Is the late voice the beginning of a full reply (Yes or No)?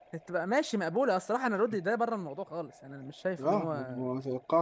Yes